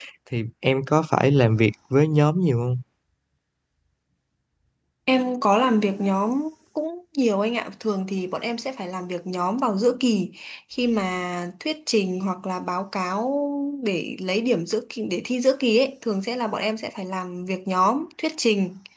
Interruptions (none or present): none